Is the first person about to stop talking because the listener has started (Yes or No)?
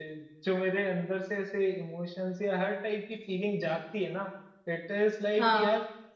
No